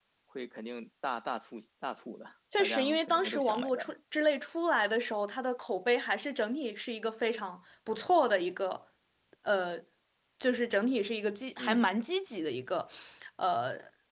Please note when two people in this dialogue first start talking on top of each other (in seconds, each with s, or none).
2.5 s